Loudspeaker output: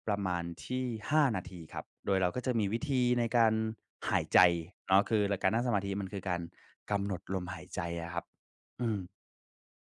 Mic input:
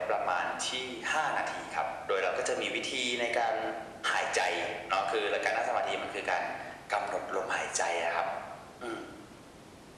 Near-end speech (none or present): none